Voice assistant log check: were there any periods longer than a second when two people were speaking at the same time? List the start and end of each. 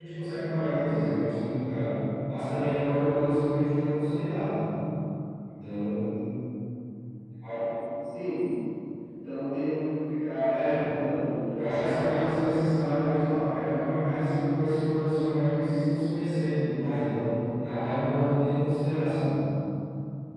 11.5-13.2

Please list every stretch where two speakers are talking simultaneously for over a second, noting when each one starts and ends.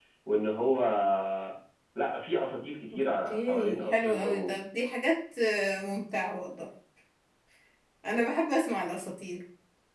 3.0-4.5

